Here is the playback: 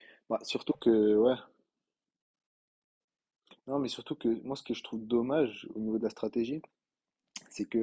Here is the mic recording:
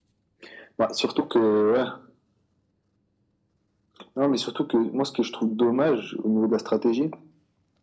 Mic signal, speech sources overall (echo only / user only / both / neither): echo only